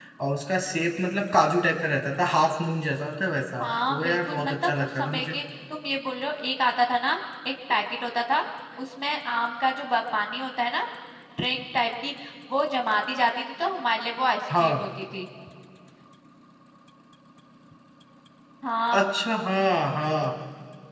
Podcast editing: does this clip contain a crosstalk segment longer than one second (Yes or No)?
Yes